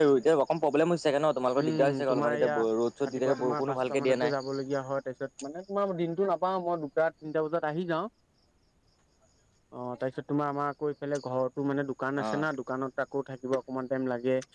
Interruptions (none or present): present